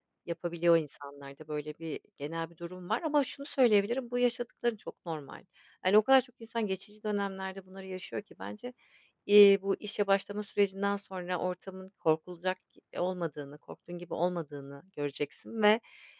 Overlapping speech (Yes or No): No